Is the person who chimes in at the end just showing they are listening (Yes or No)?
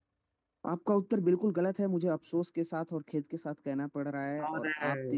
Yes